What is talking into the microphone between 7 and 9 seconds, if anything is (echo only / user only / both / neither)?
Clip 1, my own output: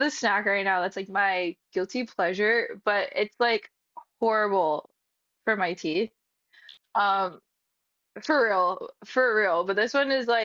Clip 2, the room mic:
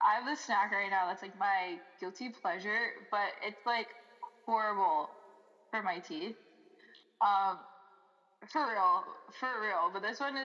echo only